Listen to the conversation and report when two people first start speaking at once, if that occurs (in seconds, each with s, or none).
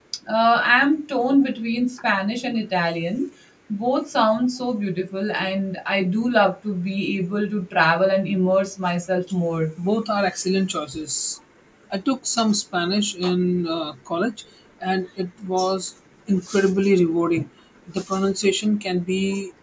none